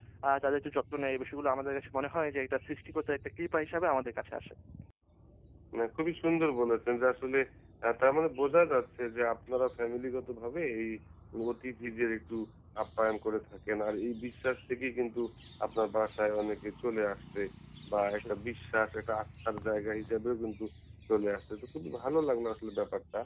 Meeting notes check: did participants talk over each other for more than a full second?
No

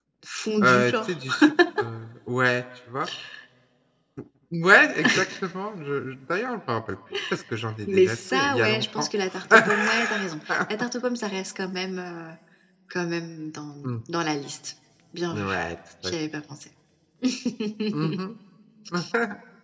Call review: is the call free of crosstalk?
No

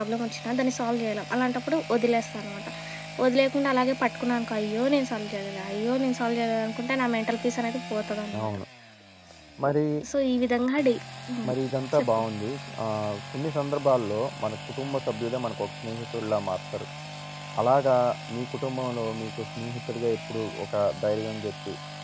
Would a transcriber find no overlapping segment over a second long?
Yes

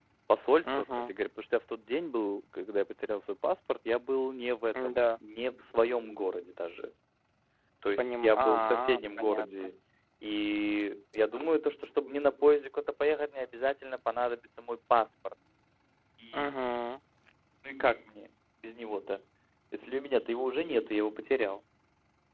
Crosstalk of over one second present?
Yes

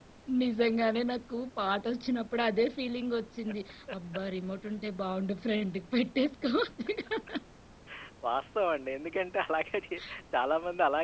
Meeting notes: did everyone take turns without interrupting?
Yes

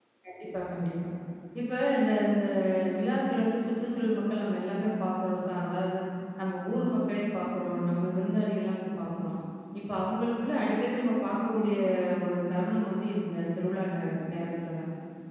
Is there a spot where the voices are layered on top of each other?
No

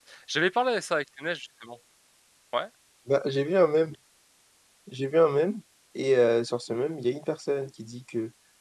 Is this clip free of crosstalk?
Yes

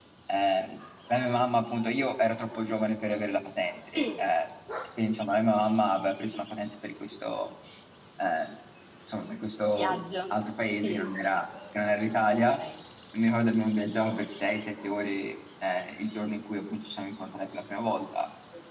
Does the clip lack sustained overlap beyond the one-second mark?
Yes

